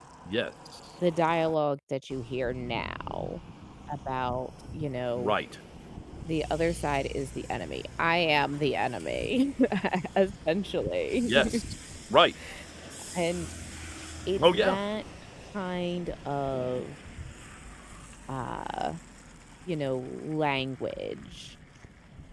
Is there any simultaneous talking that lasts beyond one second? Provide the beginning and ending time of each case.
none

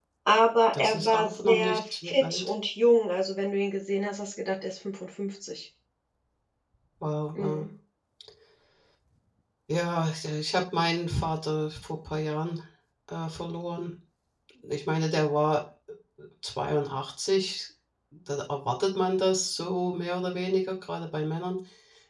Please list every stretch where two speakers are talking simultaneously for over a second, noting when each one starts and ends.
0.7-2.5

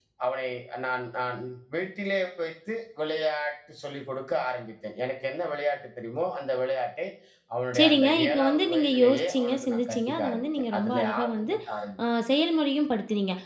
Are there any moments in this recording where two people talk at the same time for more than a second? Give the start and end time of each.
7.8-11.5

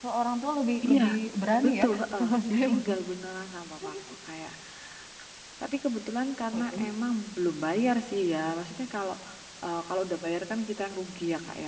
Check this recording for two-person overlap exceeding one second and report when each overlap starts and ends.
1.6-3.0

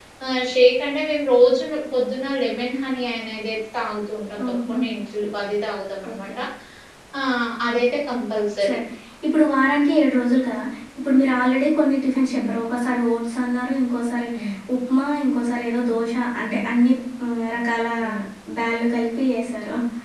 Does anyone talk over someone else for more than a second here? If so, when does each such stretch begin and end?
none

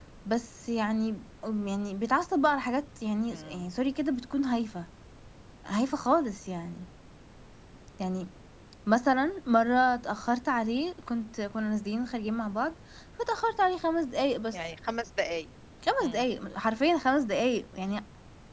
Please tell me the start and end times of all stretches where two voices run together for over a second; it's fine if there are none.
none

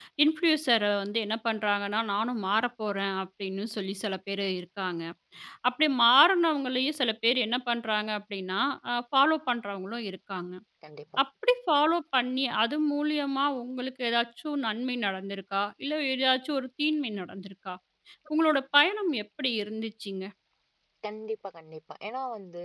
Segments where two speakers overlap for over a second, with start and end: none

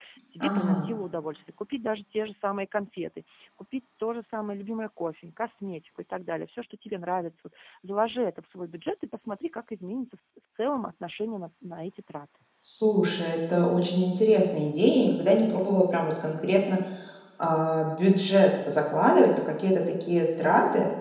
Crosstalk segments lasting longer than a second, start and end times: none

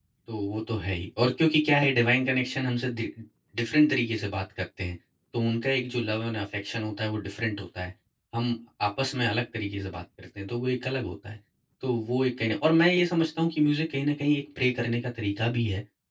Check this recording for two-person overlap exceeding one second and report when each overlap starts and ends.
none

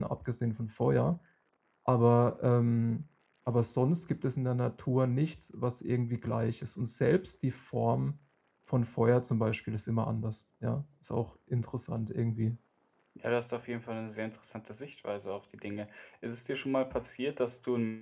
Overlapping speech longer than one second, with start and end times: none

